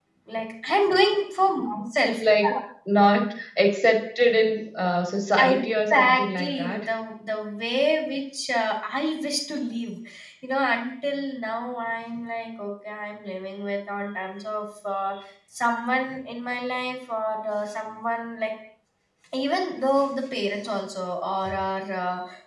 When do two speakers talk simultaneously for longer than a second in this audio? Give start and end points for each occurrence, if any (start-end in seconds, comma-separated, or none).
5.4-6.8